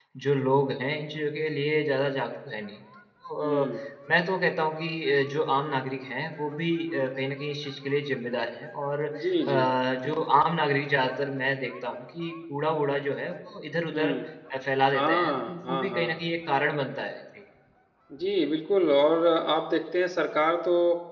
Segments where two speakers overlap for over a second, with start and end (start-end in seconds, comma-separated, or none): 14.9-16.2